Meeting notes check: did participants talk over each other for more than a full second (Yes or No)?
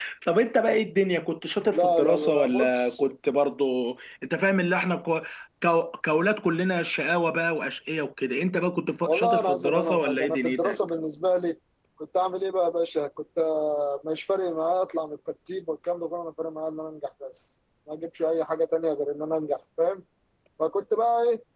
Yes